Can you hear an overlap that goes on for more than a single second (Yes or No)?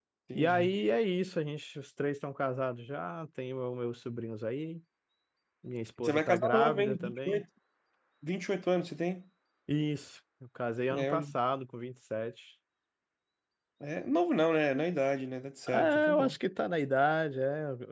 Yes